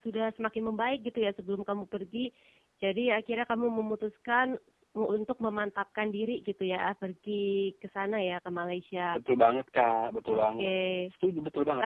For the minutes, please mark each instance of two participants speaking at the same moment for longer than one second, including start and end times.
none

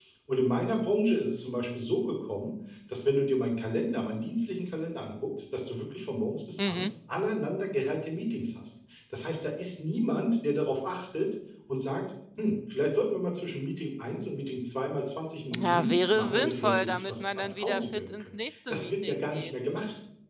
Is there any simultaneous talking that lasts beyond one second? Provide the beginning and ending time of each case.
15.6-19.5

